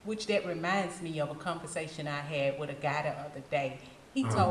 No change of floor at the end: Yes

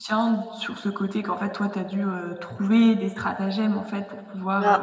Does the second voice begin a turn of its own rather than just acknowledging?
Yes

